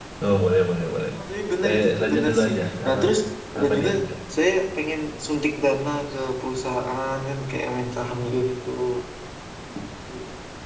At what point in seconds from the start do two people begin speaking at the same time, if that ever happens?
1.6 s

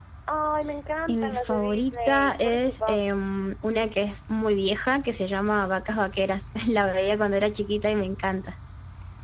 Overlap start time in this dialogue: 1.1 s

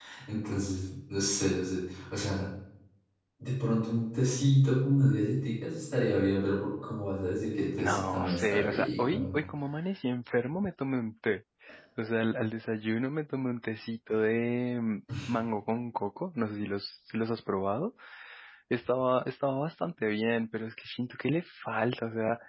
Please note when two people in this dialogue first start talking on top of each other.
7.8 s

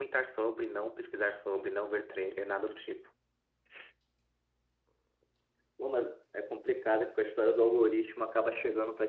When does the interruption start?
none

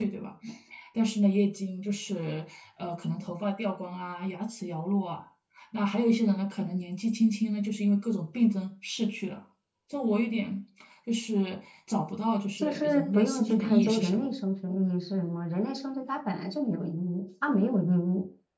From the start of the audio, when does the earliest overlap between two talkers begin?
12.6 s

